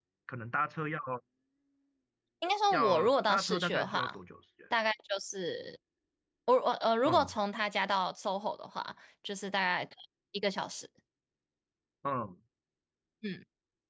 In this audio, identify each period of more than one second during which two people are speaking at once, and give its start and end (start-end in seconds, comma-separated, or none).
2.7-4.2